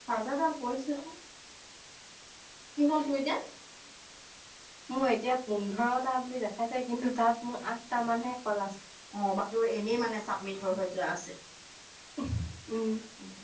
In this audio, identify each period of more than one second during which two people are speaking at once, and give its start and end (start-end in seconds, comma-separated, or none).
none